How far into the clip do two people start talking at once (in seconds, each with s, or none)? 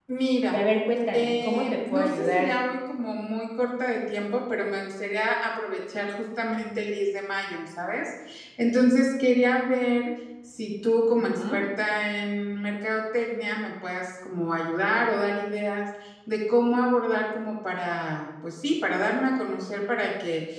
1.1 s